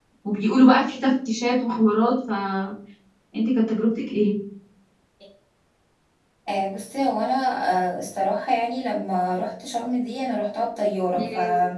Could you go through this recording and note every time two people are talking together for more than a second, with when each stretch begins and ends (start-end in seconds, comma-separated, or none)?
none